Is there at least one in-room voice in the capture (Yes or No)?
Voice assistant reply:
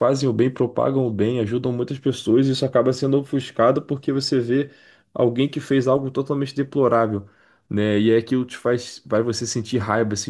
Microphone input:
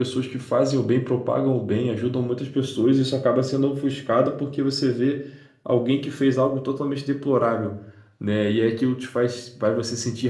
No